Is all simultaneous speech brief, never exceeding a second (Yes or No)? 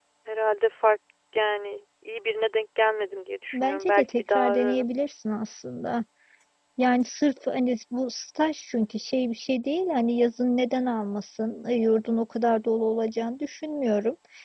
No